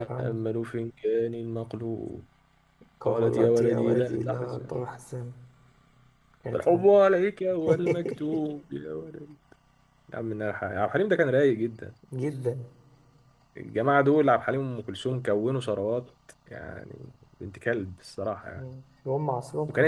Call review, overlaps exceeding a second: present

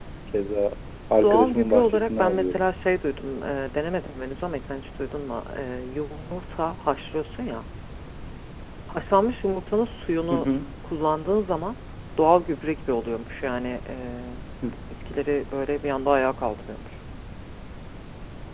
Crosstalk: present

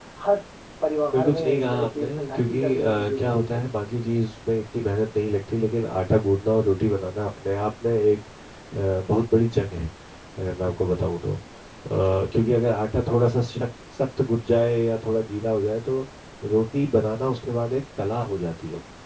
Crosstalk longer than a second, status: present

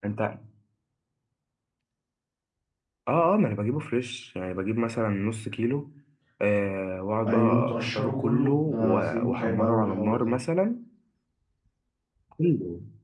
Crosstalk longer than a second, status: present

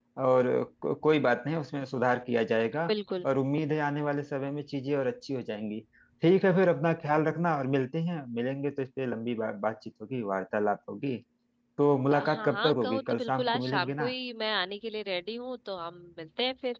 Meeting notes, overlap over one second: present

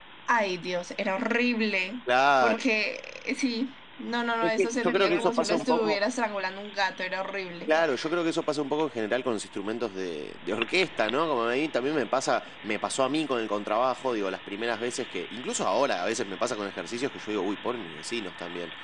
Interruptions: present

